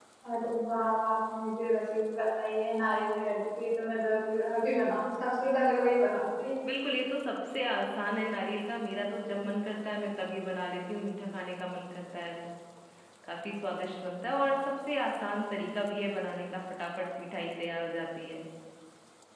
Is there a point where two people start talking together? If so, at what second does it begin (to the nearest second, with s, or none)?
none